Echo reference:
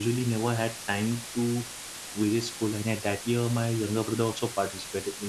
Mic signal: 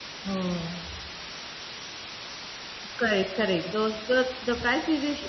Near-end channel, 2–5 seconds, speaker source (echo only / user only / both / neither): user only